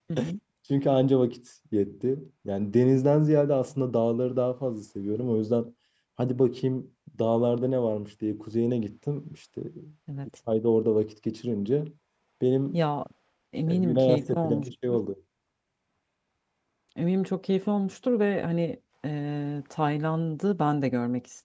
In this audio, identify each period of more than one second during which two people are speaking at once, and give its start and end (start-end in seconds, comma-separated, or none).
13.7-15.0